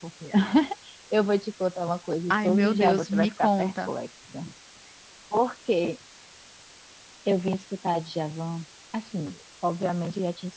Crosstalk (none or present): present